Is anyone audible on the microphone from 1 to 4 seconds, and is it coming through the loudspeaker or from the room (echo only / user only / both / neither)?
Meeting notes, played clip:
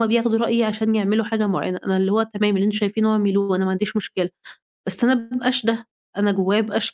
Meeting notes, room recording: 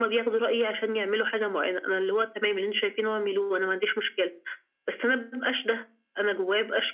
echo only